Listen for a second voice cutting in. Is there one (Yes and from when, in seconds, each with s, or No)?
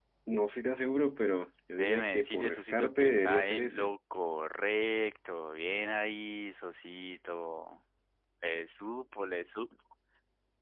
Yes, from 1.8 s